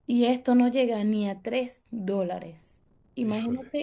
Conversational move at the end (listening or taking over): listening